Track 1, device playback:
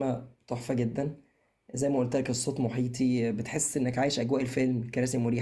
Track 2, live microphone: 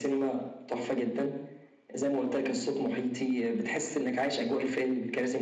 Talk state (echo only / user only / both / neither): echo only